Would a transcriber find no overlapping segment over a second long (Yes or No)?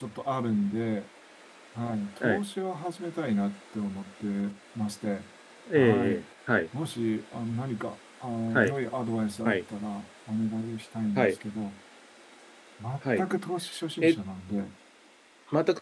Yes